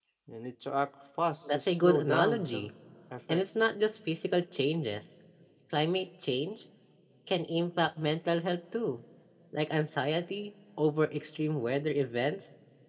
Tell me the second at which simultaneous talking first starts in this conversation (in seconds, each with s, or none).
1.5 s